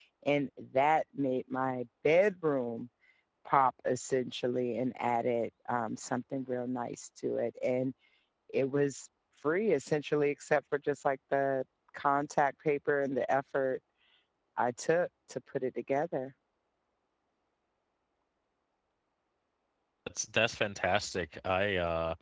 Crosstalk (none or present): none